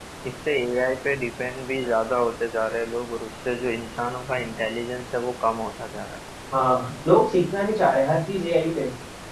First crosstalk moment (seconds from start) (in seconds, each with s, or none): none